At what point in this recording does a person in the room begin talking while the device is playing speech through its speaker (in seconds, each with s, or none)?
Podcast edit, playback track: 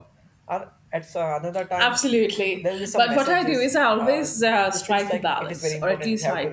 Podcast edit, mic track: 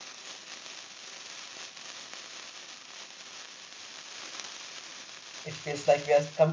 5.4 s